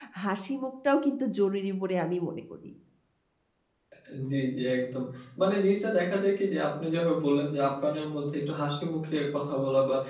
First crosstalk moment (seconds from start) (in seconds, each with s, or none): none